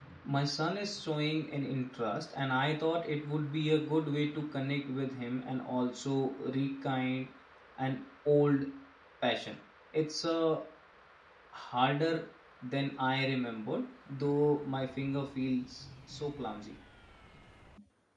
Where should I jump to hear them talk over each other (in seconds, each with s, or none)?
none